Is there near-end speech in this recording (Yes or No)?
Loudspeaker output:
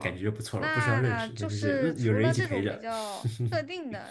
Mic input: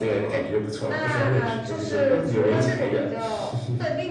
No